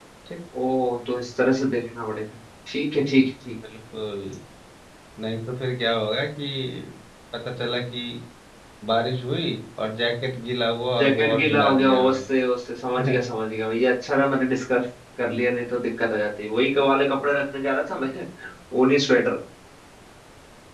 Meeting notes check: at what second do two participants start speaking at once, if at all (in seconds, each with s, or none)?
11.0 s